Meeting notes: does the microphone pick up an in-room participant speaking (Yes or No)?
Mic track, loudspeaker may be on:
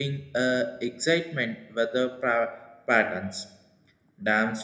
Yes